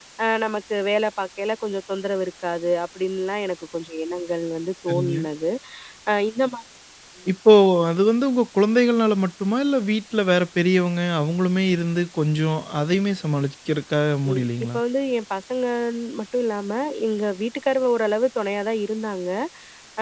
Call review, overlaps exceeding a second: none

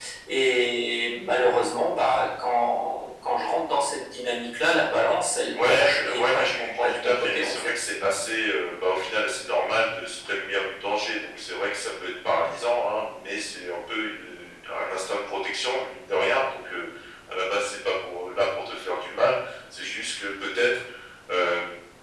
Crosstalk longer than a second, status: present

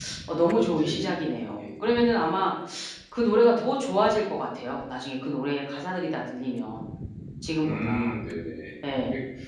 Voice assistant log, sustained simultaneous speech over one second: present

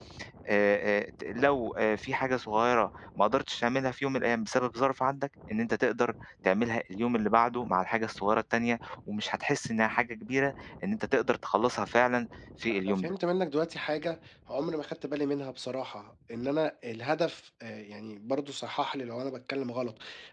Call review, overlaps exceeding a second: none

